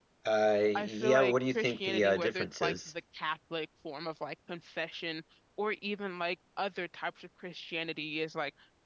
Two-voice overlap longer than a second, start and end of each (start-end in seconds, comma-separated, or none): 0.8-2.9